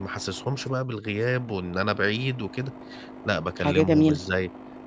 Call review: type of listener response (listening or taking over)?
listening